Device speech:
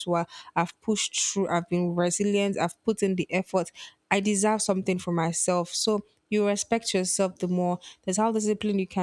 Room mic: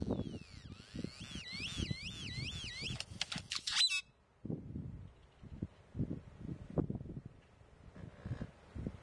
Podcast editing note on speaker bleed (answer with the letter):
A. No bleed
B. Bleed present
A